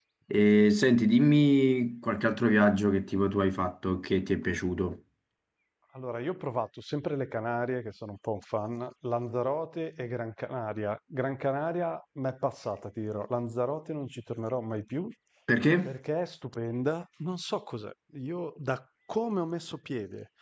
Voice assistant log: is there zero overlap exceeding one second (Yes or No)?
Yes